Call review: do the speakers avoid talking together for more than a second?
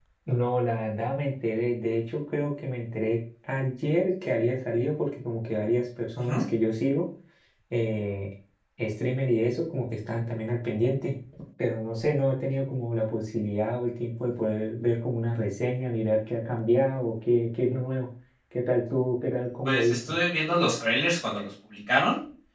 Yes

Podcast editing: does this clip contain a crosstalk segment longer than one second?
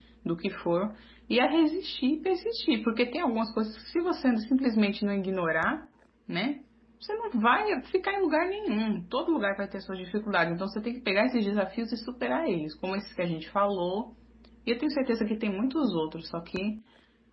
No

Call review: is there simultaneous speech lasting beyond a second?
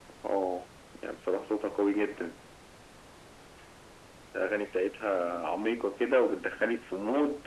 No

